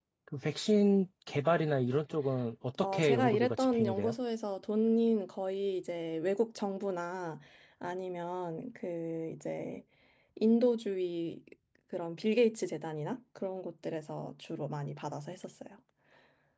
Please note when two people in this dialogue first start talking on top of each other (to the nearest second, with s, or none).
3 s